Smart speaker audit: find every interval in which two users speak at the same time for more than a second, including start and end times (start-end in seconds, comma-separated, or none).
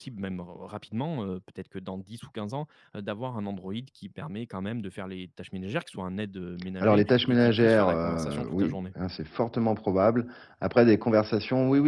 6.8-8.8